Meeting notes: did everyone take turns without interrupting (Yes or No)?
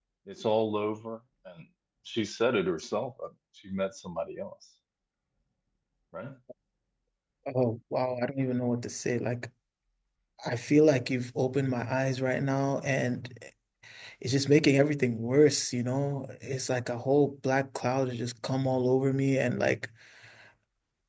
Yes